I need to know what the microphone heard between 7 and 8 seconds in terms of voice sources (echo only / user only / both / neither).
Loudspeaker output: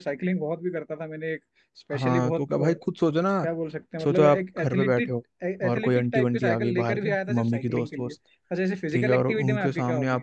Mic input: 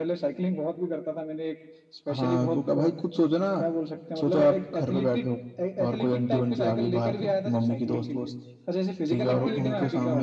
echo only